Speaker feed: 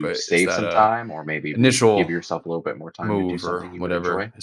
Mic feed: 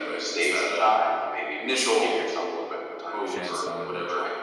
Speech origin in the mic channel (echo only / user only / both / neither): both